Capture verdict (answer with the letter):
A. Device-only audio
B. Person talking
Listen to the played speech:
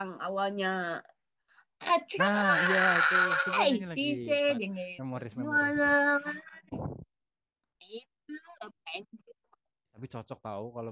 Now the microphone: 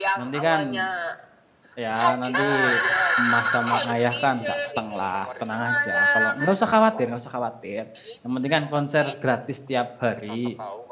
B